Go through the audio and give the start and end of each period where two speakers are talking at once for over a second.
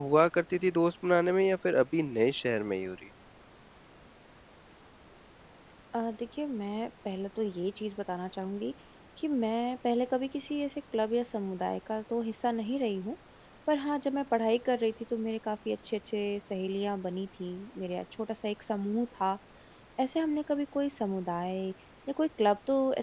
none

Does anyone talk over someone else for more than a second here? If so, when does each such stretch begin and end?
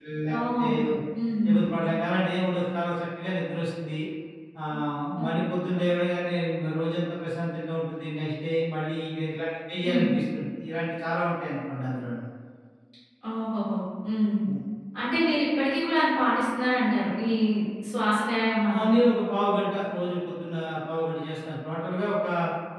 none

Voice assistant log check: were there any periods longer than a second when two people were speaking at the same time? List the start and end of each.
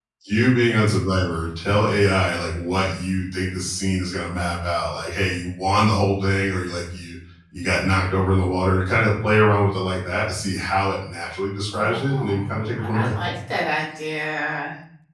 11.7-13.1

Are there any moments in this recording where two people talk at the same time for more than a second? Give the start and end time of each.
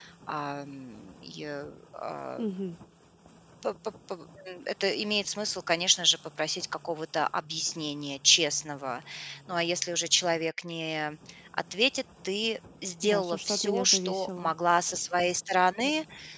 13.0-14.5

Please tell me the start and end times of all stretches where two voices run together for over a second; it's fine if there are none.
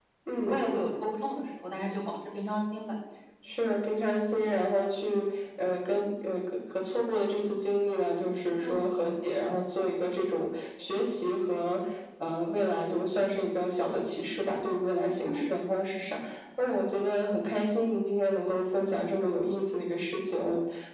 none

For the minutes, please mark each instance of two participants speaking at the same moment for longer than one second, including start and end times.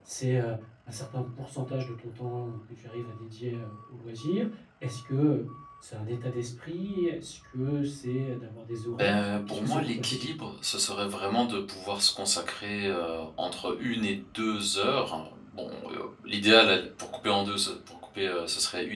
8.9-10.5

